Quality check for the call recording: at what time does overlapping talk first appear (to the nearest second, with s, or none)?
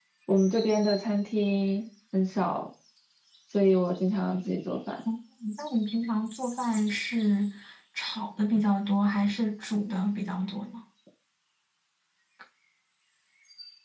none